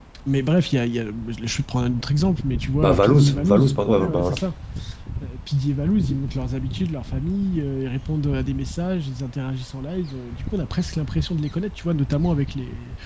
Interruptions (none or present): present